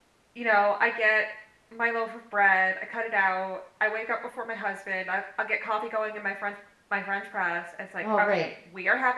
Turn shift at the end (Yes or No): No